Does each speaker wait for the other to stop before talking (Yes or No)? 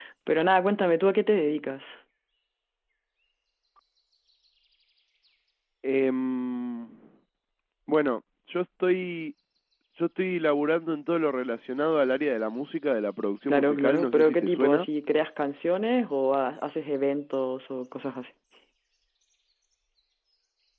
No